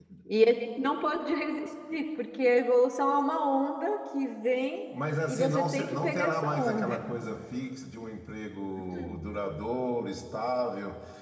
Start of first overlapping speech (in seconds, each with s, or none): 5.3 s